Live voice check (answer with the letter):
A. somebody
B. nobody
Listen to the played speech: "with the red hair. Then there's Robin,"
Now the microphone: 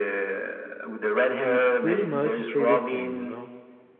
A